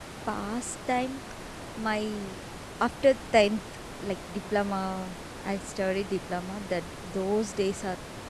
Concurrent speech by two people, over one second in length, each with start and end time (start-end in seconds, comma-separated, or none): none